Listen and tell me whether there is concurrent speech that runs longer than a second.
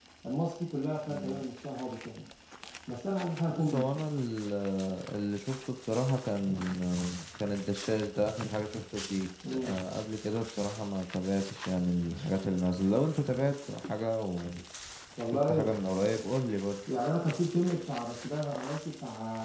No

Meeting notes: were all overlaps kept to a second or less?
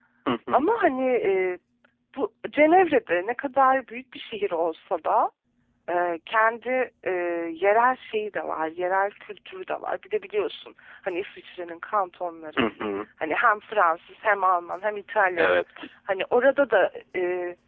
Yes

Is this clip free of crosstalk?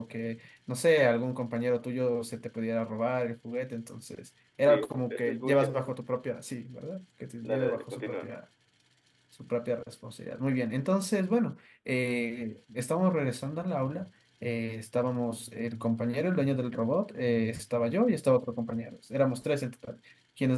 No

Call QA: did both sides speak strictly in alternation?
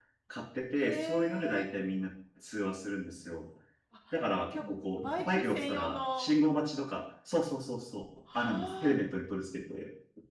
No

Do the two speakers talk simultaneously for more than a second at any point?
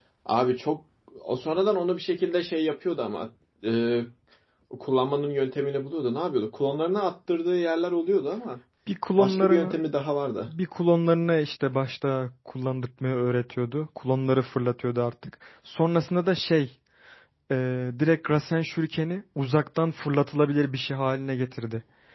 No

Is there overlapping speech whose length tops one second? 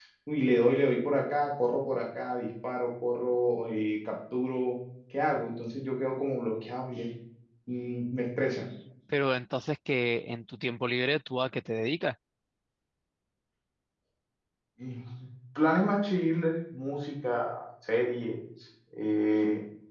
No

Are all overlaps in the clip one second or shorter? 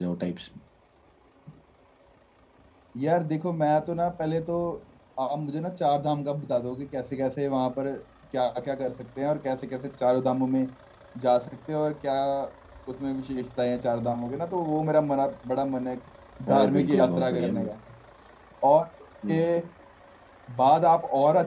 No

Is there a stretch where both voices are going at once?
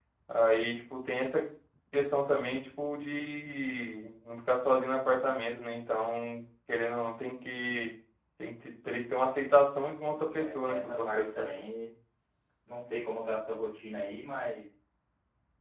Yes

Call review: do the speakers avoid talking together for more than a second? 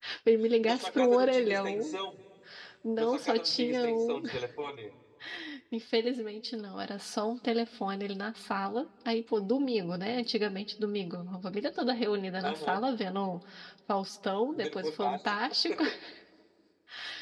No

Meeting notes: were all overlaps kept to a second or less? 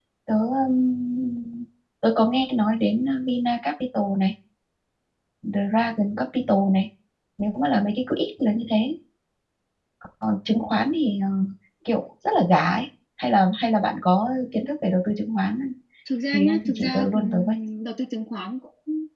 No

